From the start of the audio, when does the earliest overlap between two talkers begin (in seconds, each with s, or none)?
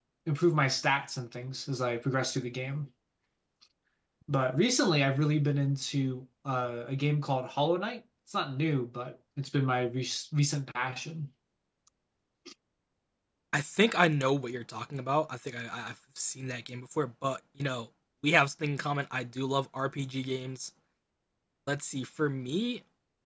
none